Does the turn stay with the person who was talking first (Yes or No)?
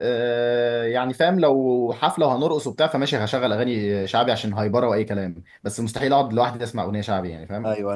No